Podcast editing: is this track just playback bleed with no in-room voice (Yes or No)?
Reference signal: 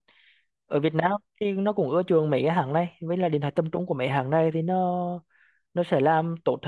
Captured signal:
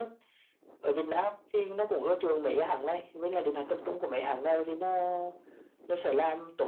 Yes